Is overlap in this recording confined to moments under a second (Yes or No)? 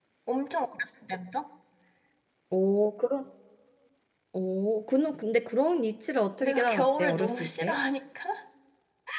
No